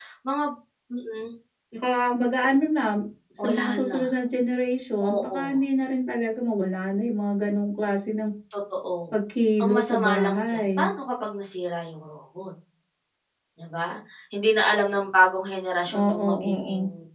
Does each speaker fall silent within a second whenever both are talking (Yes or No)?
No